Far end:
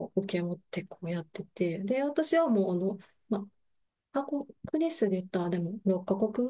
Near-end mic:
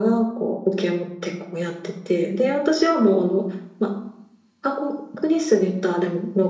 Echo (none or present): present